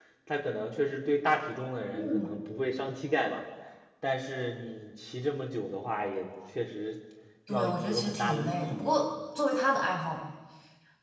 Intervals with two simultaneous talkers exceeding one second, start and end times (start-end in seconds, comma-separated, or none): 7.5-8.9